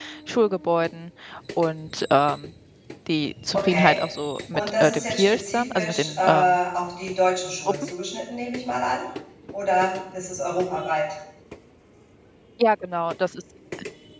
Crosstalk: present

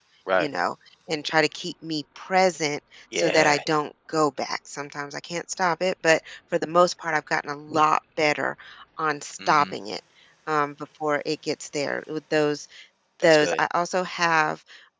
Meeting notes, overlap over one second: none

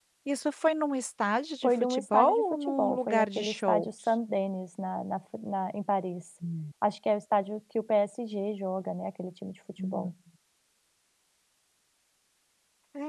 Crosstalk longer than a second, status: present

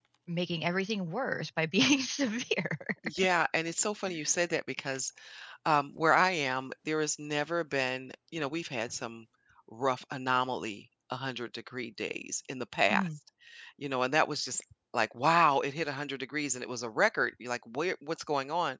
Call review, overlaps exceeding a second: none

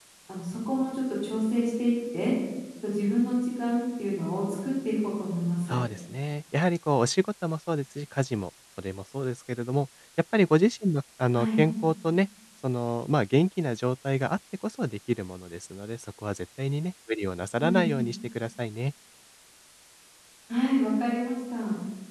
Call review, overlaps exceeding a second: none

